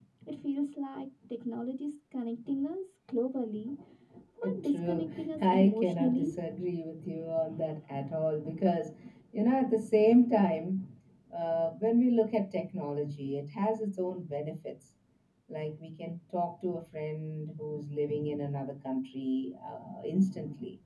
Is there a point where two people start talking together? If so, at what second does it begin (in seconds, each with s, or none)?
4.6 s